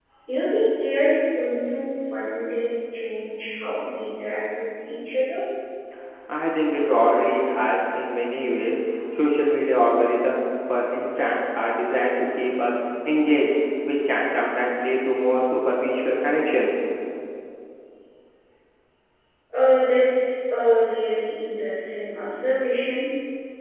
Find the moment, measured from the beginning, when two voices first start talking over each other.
none

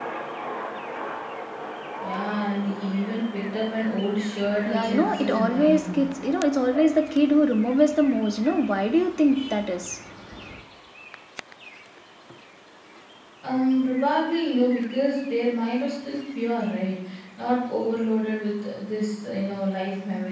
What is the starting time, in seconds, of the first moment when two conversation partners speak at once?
4.4 s

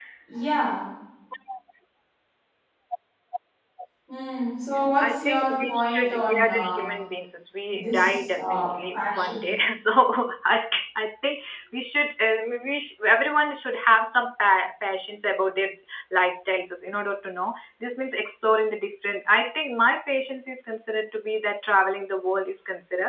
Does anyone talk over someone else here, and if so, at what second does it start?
5.0 s

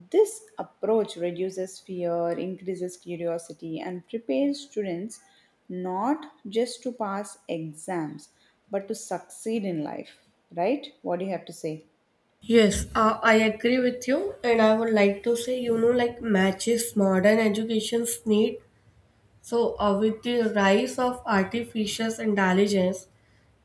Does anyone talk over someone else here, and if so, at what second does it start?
none

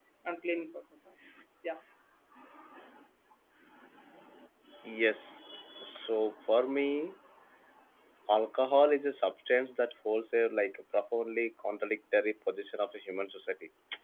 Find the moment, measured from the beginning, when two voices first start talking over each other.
none

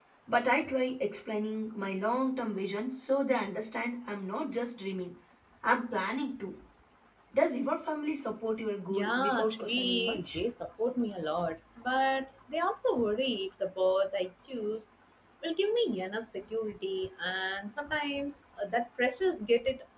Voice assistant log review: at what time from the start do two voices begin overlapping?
8.9 s

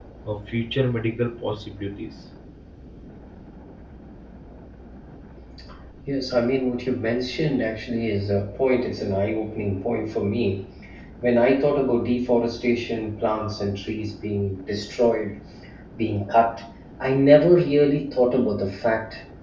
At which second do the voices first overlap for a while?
none

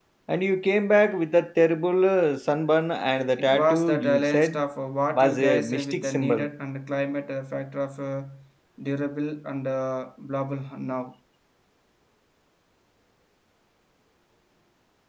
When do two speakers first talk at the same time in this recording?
3.4 s

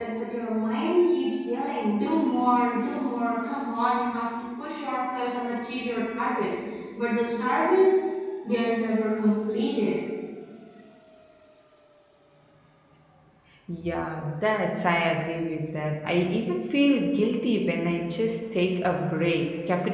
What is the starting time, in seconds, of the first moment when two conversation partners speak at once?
none

